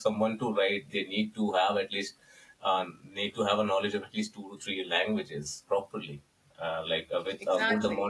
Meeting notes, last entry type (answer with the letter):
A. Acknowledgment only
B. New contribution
A